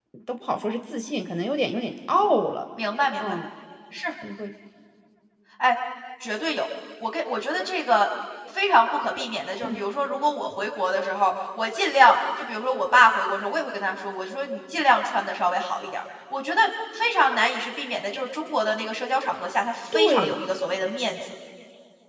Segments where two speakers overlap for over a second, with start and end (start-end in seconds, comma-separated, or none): none